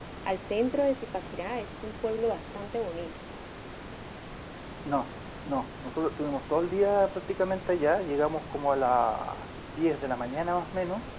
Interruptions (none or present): none